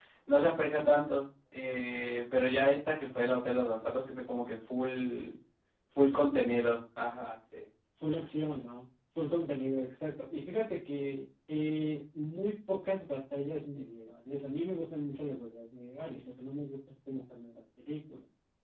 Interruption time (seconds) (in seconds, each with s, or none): none